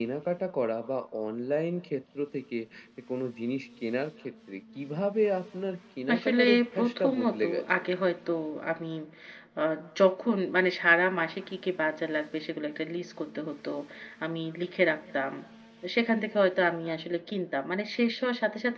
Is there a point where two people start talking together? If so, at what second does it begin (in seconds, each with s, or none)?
6.1 s